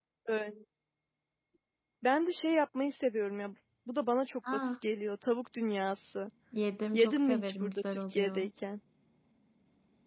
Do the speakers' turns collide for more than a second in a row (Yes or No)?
Yes